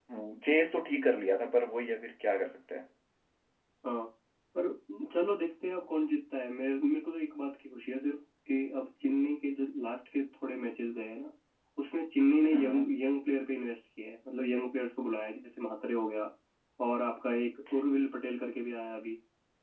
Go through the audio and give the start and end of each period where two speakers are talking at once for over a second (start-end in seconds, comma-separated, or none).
none